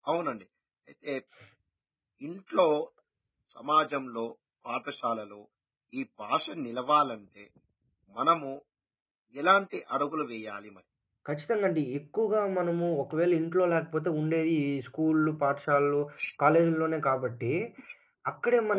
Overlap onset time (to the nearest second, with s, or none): none